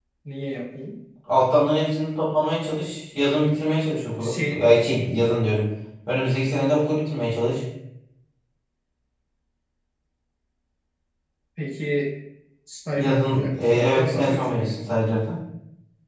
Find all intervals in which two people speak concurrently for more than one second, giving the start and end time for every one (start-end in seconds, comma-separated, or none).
12.9-14.8